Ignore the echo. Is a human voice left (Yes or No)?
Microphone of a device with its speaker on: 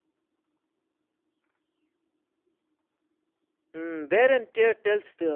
Yes